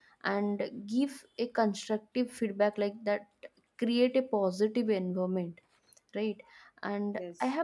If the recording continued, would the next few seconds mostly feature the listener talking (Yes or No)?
No